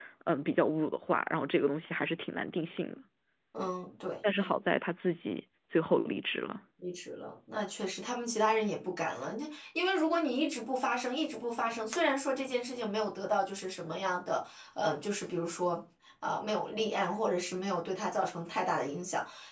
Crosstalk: none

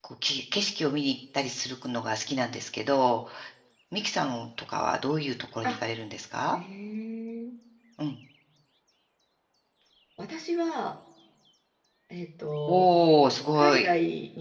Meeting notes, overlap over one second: none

